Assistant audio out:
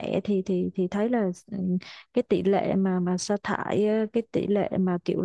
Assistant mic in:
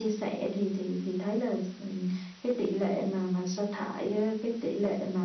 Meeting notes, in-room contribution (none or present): none